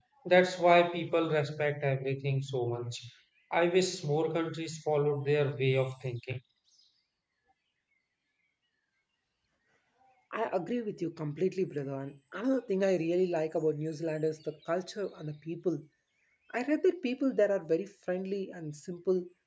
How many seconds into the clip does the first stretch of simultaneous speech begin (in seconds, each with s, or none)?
none